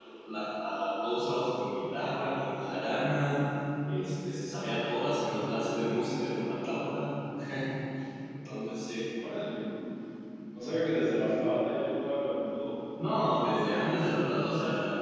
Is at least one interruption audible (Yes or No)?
No